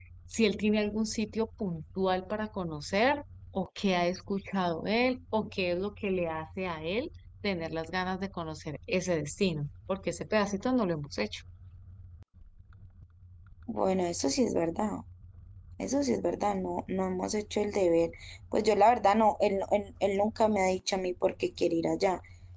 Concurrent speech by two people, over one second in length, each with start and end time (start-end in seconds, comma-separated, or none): none